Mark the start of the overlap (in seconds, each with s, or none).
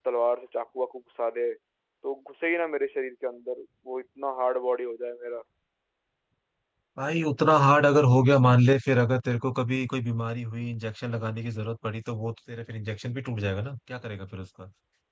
none